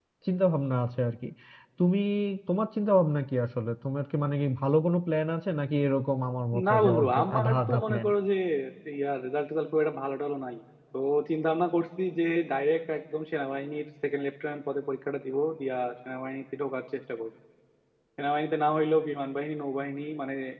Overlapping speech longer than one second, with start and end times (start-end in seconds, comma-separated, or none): 6.7-8.1